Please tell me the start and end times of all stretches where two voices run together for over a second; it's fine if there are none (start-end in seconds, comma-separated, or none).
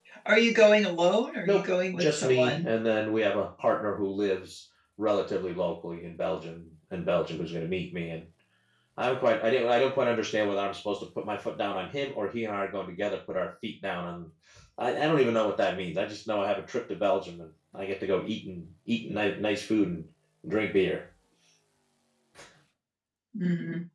1.4-2.7